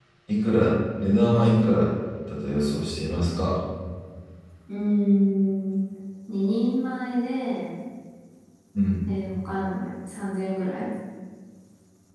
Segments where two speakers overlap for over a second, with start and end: none

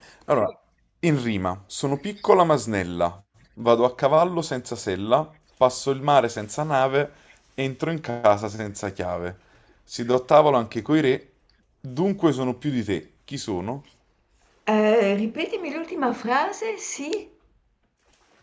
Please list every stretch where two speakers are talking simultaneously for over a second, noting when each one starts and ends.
none

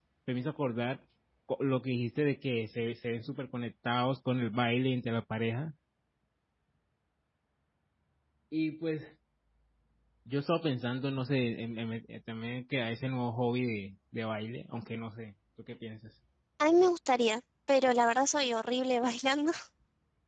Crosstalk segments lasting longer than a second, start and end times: none

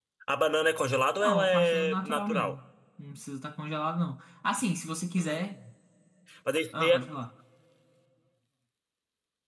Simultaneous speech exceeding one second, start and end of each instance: 1.2-2.5

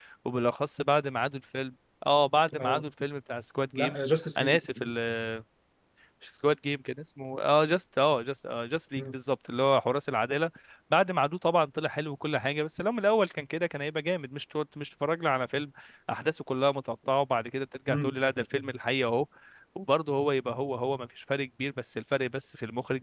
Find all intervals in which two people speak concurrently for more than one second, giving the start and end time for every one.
none

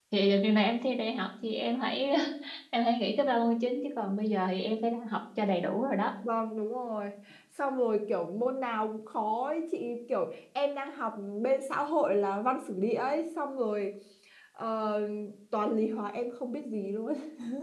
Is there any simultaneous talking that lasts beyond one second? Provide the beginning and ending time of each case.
none

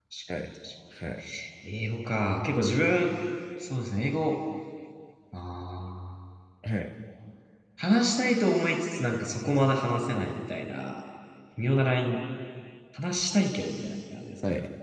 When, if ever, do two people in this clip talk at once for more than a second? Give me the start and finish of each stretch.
none

